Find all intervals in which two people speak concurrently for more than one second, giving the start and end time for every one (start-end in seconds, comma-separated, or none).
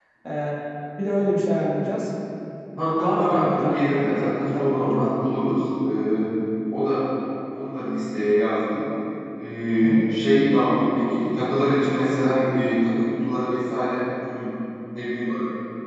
3.0-5.2